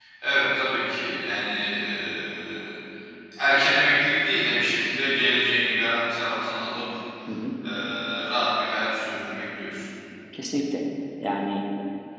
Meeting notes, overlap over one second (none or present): none